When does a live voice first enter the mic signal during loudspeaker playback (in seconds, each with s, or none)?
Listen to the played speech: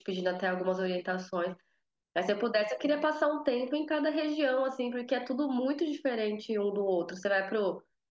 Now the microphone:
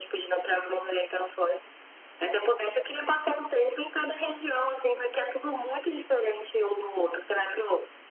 none